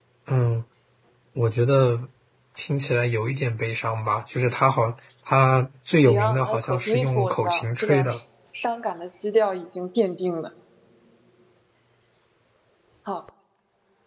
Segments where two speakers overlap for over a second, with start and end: 6.0-8.0

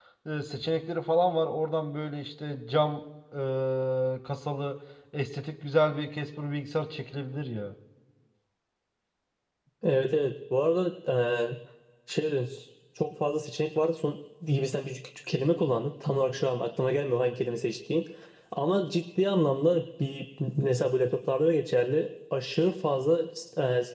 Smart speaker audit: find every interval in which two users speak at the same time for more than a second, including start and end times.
none

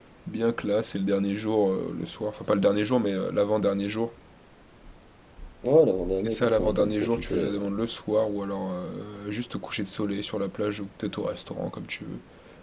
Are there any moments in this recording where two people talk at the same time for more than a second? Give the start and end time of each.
6.1-7.6

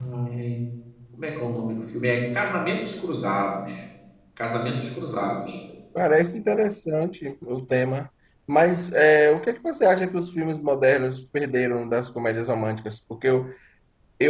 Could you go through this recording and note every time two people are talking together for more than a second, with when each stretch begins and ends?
none

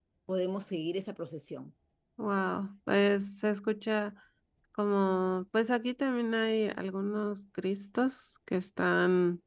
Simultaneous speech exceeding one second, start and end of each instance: none

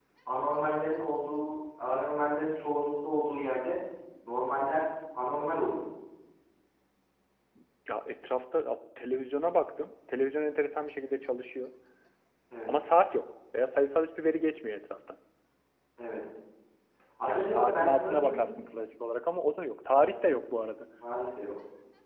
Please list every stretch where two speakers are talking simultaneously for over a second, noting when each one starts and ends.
17.3-18.5

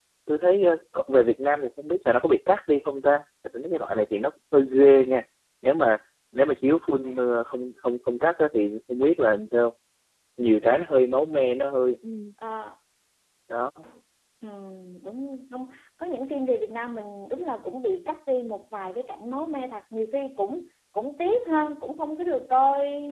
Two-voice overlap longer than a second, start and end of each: none

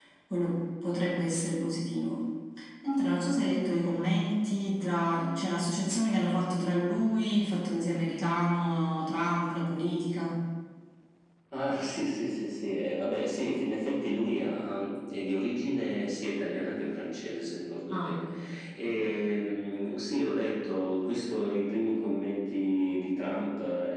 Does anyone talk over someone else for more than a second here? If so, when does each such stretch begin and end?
none

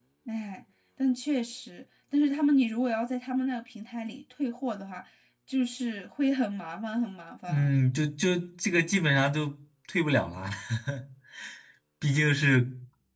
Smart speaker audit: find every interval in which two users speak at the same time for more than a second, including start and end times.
none

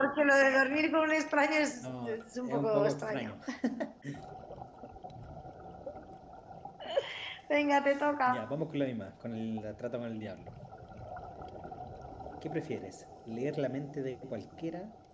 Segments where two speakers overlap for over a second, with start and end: 1.8-3.3

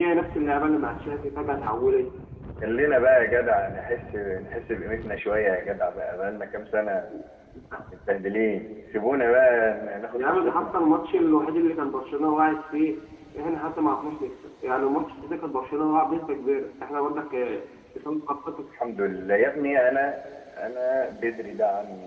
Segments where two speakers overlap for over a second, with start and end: none

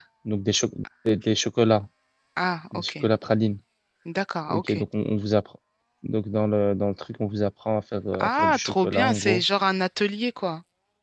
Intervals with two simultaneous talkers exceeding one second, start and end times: 8.2-9.4

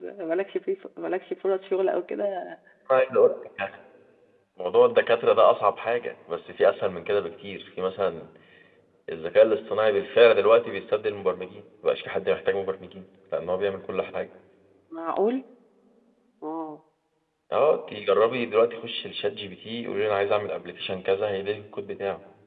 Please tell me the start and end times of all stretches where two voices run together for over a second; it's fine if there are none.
none

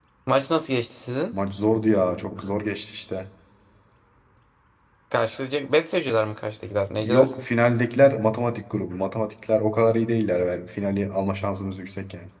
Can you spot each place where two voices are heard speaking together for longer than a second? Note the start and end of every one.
none

